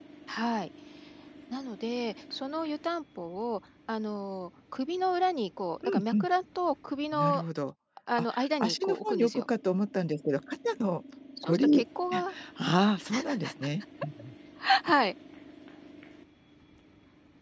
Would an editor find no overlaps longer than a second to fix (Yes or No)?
No